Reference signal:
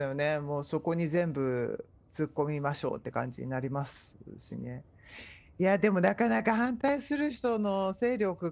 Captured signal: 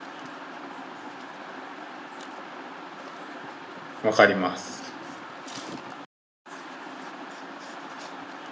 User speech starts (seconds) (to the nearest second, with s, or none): 4 s